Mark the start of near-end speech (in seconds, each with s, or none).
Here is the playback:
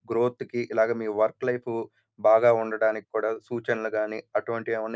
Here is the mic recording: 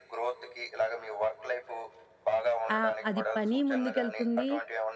2.8 s